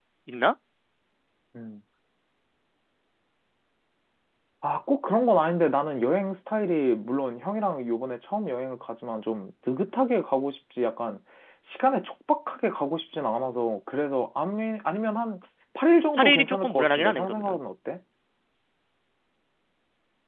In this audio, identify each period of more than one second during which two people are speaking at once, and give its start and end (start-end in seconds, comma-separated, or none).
16.2-17.6